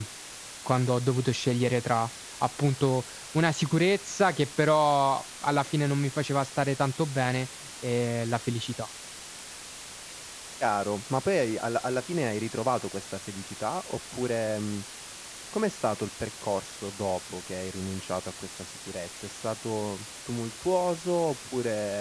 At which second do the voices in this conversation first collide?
none

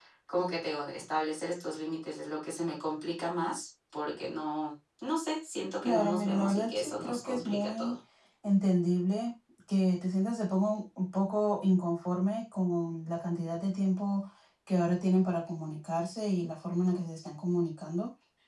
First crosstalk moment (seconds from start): 5.8 s

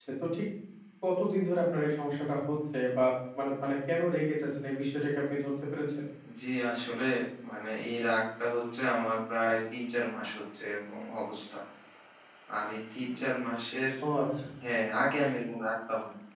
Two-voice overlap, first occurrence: none

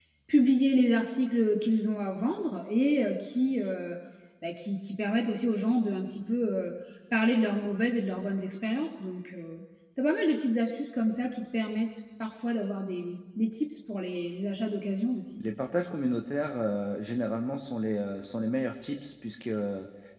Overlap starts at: none

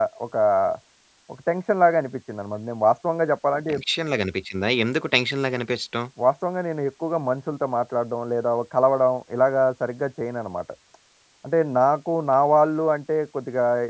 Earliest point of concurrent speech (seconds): none

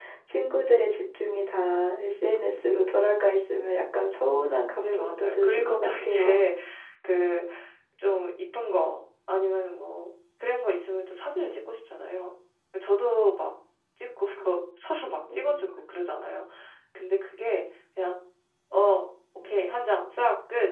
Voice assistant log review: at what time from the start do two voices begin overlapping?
4.8 s

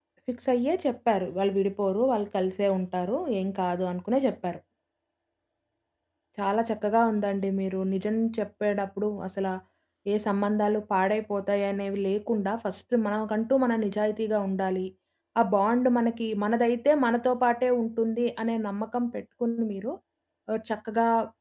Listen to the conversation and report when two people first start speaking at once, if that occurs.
none

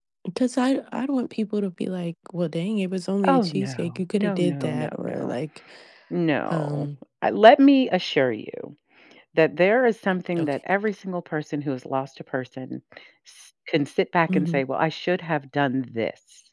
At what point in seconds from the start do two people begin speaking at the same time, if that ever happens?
3.2 s

